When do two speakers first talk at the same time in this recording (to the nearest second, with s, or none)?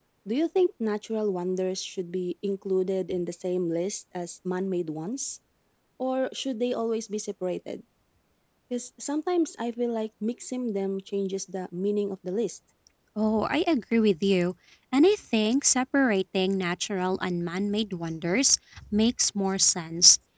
none